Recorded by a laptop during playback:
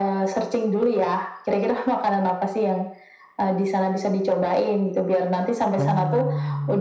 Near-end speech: present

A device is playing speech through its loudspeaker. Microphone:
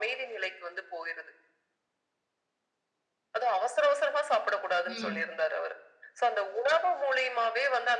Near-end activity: present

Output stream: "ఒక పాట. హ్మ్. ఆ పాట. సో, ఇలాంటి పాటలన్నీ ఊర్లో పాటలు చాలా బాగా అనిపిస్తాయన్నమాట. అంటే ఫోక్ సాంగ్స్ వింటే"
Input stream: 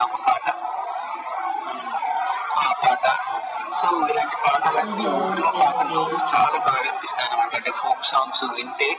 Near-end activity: present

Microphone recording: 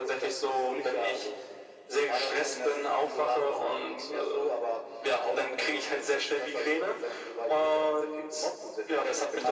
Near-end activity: none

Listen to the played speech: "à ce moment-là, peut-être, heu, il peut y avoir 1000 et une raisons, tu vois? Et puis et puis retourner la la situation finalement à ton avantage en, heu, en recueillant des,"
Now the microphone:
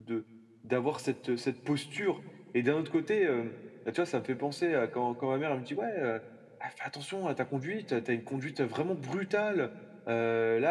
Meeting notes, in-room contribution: present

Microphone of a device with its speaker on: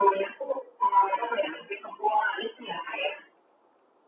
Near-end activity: none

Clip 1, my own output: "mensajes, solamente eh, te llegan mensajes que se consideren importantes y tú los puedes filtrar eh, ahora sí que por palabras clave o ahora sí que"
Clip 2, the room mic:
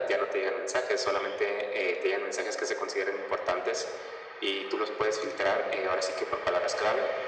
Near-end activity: none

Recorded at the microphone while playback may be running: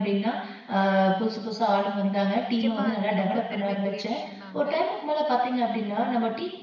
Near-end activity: present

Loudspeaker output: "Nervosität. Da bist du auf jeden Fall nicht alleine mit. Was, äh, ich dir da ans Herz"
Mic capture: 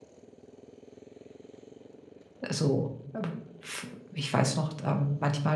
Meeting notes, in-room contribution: present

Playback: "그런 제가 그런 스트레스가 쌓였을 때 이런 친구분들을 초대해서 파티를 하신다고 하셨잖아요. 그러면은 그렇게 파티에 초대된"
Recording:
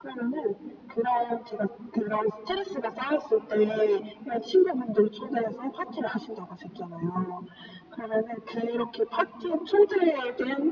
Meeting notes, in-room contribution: none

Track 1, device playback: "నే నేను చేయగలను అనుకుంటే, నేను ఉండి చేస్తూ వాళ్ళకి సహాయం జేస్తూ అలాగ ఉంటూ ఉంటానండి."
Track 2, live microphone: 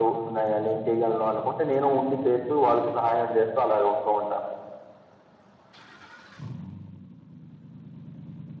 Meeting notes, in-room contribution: none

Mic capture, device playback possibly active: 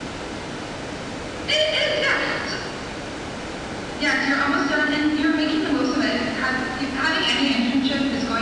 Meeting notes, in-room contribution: none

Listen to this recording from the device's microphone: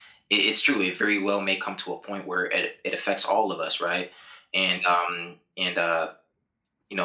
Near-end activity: present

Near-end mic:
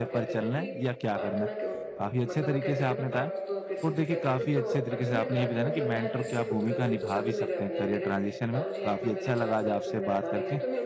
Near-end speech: present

